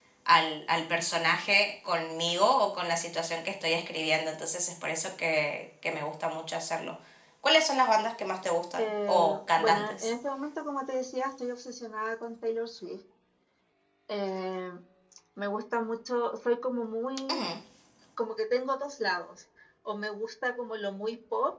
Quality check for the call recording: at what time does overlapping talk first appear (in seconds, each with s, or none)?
8.8 s